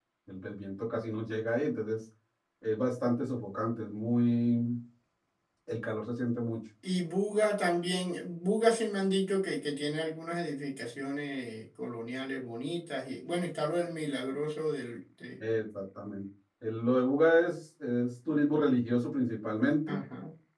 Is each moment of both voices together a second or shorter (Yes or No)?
Yes